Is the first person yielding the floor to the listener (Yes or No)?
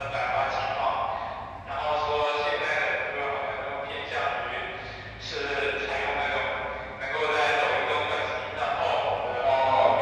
Yes